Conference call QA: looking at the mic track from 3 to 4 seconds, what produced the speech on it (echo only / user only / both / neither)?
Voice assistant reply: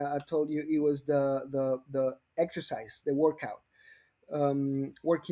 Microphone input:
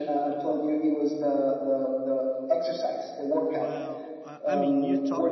both